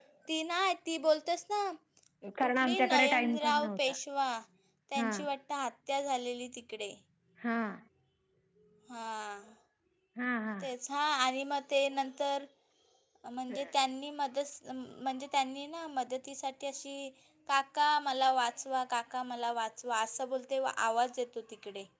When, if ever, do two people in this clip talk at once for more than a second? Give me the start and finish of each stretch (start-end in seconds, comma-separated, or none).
2.4-3.9